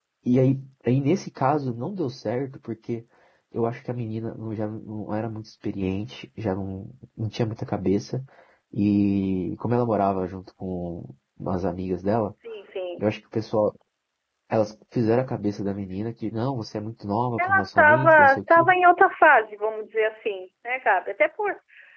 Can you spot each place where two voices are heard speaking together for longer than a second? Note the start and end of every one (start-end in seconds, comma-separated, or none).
17.4-18.7